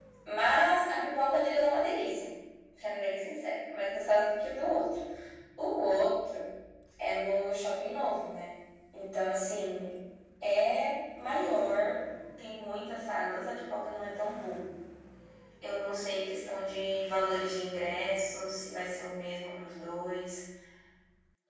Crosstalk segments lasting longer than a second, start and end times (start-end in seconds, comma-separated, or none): none